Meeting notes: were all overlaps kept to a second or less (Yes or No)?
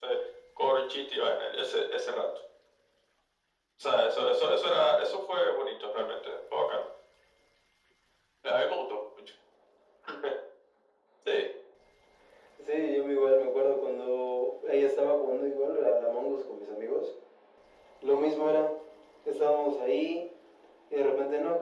Yes